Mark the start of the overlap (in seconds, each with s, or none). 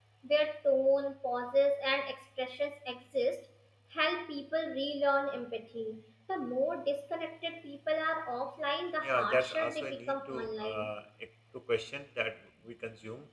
9.0 s